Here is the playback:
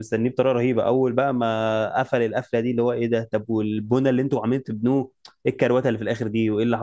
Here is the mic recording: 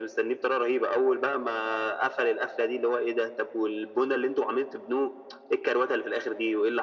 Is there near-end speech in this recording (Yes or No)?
No